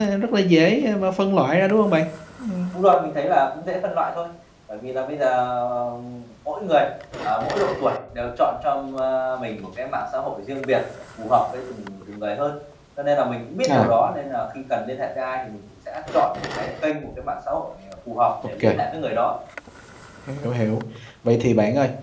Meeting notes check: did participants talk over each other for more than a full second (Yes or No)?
No